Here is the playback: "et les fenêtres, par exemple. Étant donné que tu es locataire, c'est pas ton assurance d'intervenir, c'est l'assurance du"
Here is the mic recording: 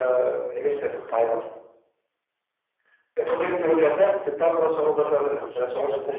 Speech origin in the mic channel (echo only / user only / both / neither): both